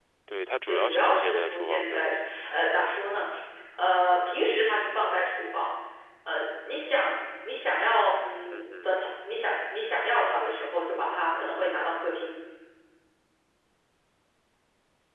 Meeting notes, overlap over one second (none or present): present